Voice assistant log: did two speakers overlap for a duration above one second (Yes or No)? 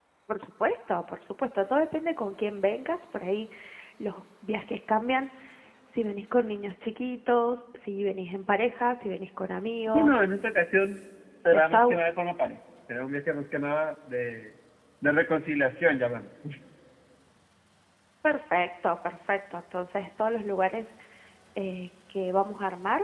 No